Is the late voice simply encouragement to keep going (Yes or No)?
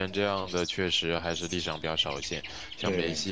Yes